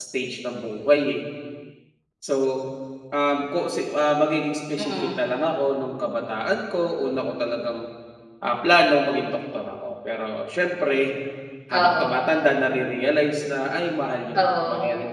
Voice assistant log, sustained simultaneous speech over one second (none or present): none